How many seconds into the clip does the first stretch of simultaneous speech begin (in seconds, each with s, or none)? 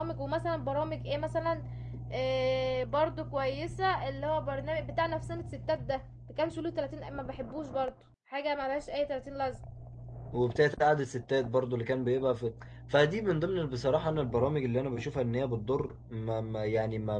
none